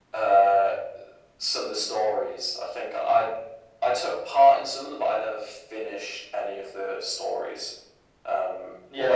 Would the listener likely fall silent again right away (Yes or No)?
No